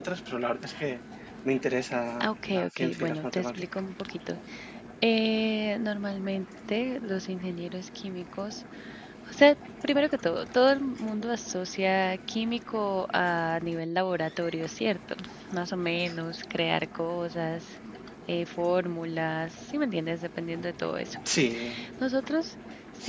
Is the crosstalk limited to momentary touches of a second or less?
No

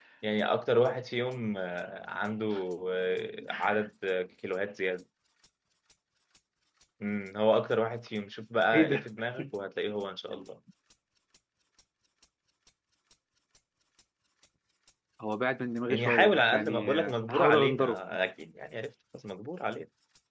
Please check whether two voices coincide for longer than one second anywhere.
Yes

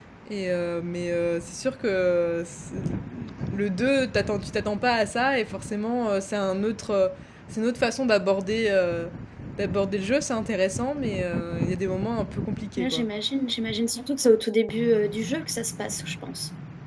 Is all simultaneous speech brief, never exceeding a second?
Yes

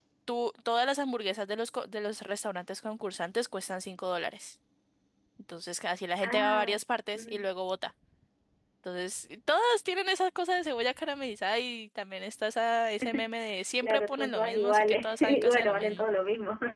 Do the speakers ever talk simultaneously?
Yes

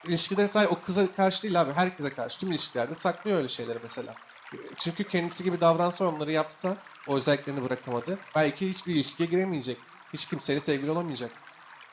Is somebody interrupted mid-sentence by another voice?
No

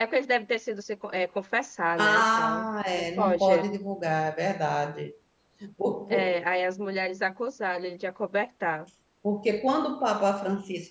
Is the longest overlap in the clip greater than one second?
Yes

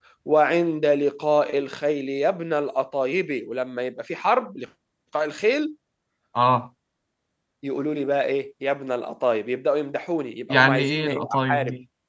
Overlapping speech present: Yes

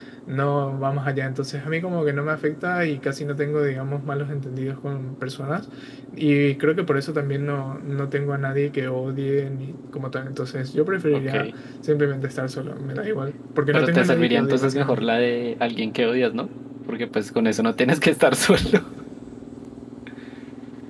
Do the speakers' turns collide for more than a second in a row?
Yes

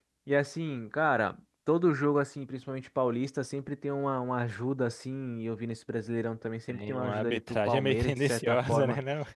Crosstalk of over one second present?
Yes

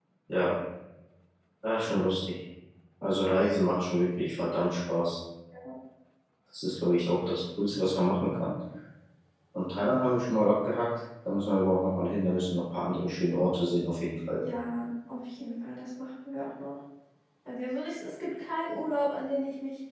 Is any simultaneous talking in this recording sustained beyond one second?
No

